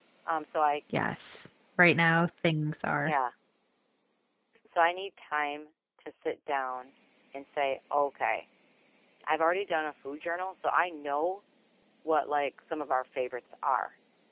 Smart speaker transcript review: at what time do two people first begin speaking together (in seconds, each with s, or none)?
none